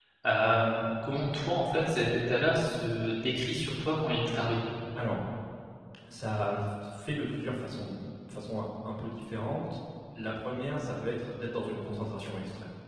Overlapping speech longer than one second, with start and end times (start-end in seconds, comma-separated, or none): none